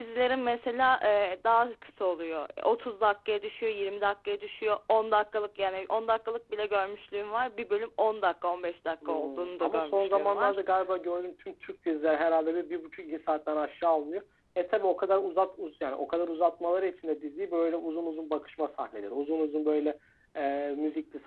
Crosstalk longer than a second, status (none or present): present